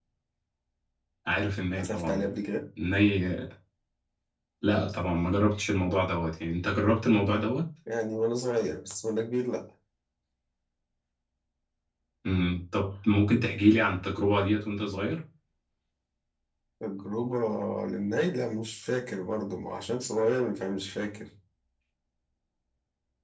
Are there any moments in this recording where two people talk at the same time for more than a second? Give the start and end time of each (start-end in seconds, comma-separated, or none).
none